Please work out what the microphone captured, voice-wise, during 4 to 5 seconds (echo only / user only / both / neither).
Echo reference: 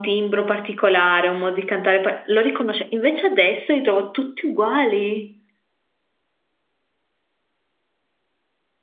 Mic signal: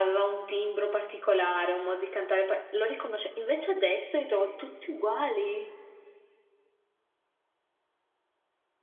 echo only